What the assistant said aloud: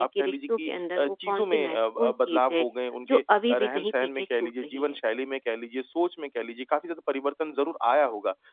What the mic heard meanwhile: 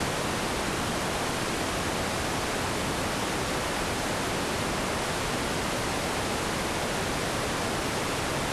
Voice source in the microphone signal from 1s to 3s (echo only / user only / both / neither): neither